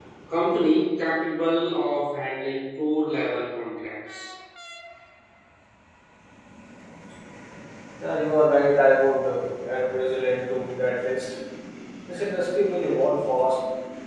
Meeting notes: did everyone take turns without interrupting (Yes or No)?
Yes